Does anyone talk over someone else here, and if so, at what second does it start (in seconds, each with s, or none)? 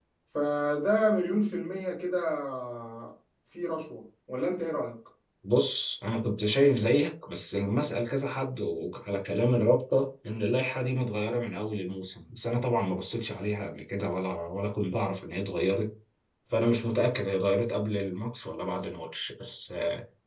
none